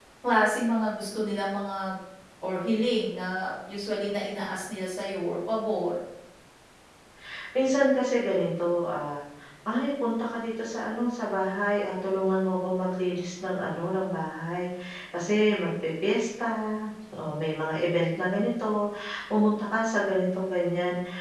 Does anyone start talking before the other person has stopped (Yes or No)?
No